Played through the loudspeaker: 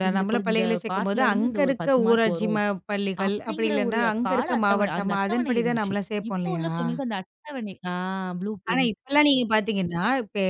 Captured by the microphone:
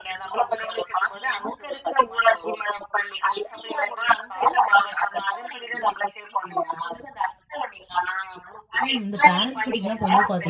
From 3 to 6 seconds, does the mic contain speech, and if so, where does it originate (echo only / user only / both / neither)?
echo only